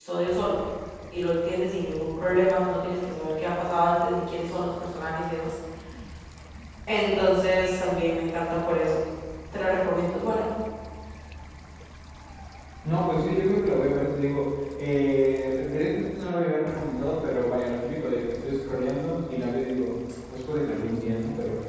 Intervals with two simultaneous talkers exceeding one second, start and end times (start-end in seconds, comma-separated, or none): none